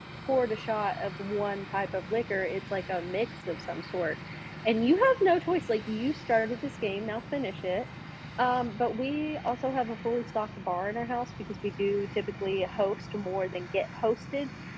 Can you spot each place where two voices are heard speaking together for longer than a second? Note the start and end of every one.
none

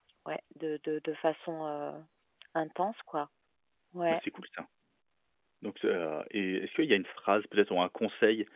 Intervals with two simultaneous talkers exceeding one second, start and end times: none

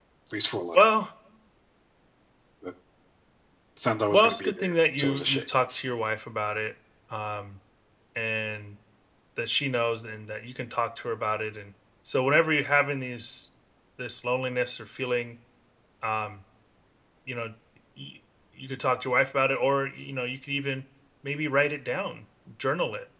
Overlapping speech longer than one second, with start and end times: 4.1-5.4

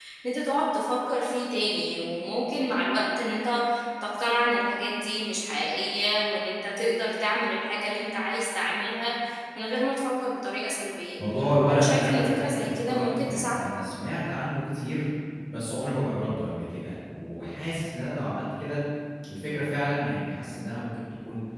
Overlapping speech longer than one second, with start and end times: 11.7-13.6

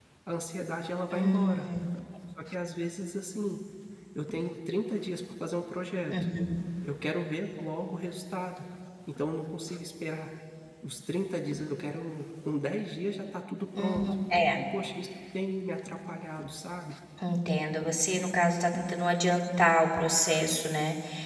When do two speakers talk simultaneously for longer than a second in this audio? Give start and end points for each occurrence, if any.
none

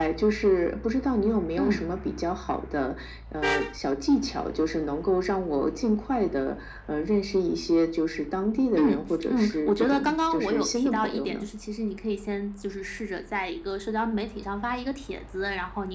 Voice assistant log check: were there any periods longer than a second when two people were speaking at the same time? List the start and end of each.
8.8-11.4

